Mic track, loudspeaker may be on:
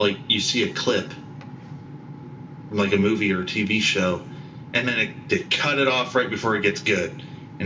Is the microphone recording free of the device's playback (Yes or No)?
Yes